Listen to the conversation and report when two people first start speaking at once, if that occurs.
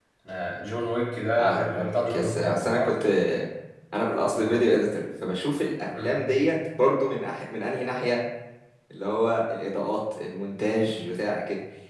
1.4 s

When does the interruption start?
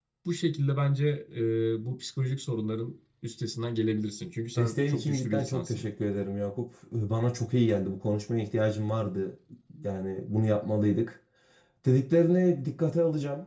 4.5 s

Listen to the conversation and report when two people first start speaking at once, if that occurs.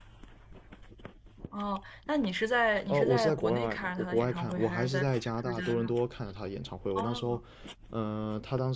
2.9 s

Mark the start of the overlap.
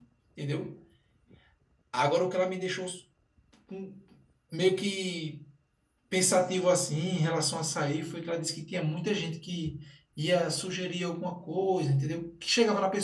none

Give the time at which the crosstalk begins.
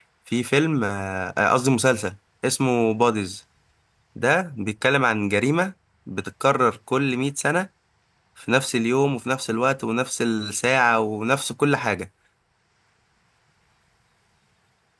none

